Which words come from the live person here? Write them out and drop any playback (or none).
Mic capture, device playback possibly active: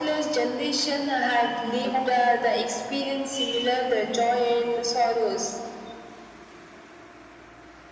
none